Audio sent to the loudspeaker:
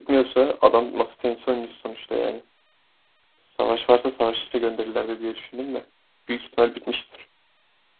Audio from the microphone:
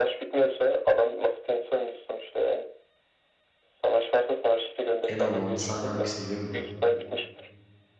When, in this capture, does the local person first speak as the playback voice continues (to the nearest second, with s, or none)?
5 s